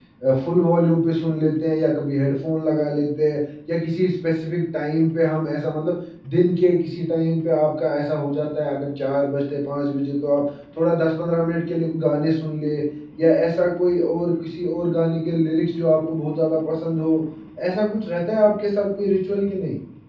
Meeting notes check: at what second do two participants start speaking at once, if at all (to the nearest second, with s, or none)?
none